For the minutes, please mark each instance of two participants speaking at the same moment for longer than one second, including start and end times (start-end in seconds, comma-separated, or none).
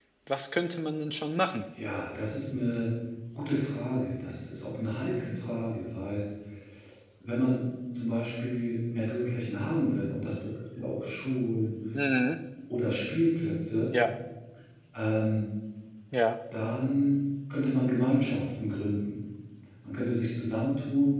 none